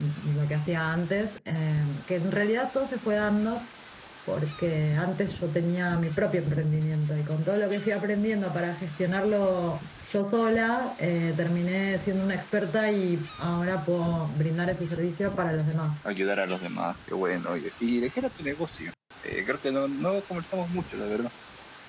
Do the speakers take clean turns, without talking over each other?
Yes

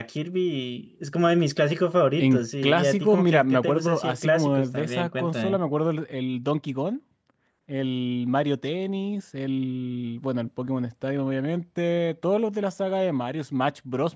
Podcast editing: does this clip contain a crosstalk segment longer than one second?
Yes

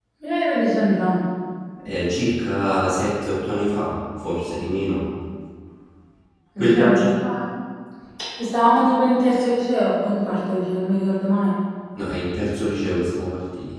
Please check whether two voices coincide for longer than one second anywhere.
No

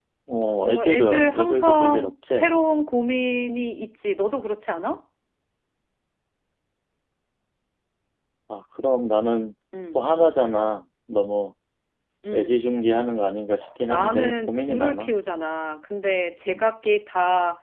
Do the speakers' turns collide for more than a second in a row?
Yes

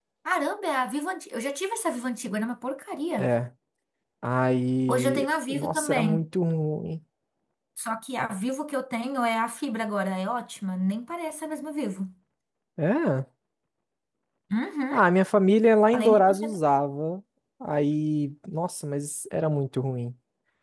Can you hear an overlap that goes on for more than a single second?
Yes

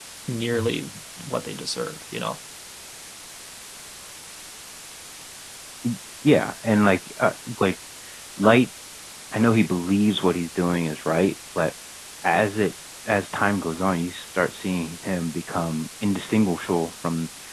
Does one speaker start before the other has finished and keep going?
No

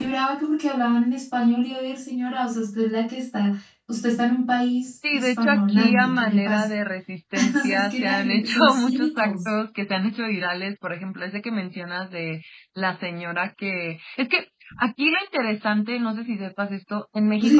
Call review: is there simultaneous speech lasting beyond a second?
Yes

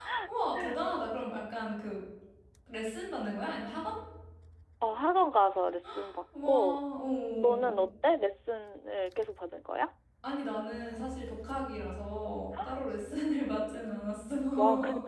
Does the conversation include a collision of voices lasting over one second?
No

